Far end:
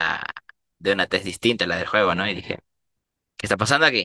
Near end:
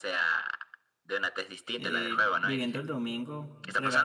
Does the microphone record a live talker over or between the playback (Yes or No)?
Yes